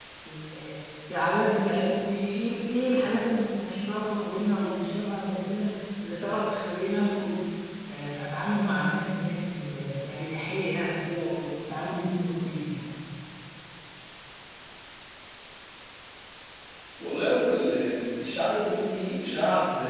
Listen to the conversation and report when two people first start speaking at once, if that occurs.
none

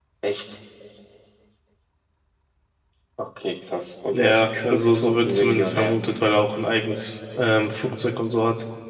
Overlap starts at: 4 s

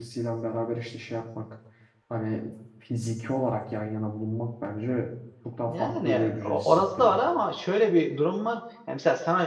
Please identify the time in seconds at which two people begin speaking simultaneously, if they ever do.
6 s

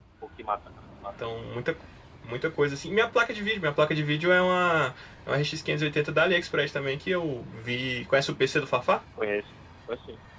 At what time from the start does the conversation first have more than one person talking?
none

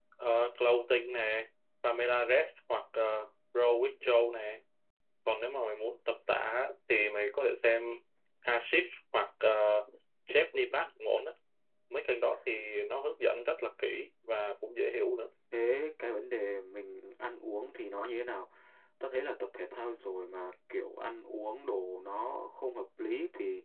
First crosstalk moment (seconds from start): none

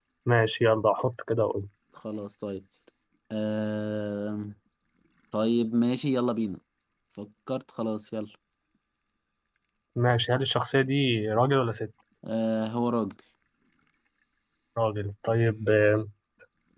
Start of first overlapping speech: none

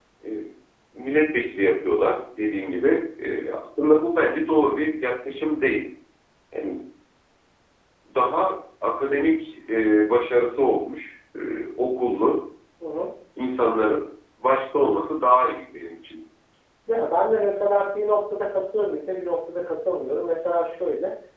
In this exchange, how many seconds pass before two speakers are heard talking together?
none

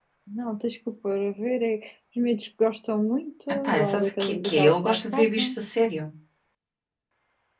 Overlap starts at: 4 s

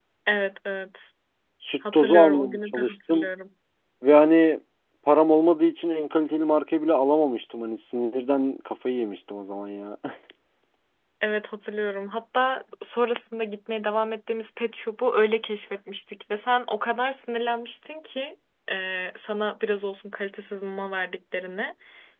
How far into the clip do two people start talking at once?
2 s

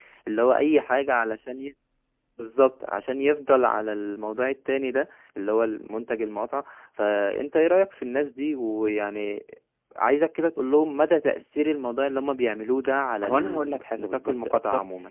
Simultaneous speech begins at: 13 s

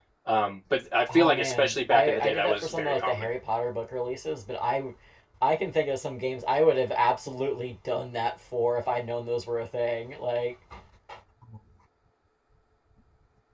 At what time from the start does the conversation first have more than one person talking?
1 s

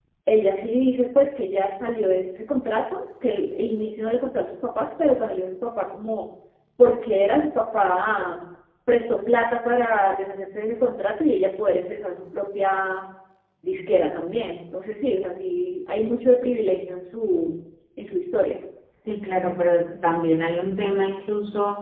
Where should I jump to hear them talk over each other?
none

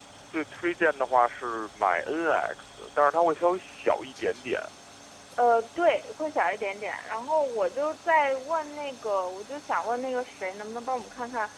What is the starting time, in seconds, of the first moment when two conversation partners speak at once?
none

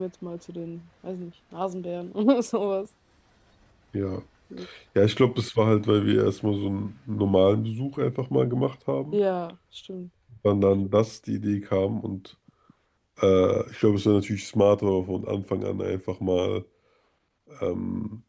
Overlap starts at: none

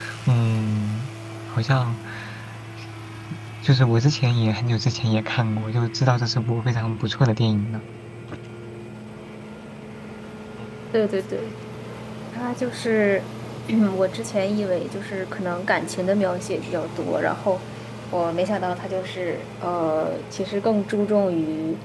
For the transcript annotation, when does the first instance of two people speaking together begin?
none

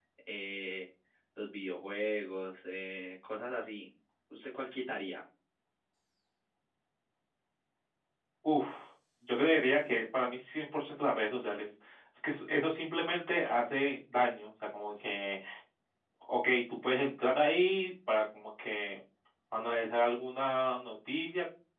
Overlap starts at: none

